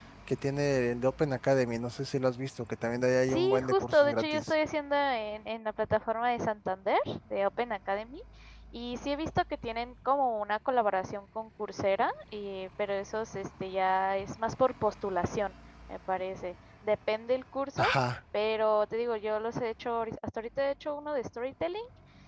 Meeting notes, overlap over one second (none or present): present